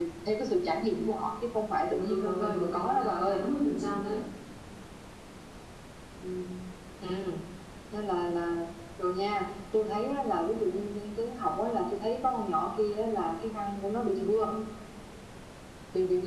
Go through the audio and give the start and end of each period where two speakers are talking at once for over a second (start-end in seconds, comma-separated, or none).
2.0-3.4